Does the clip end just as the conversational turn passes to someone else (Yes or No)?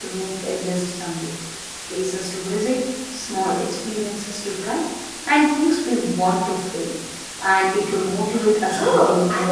Yes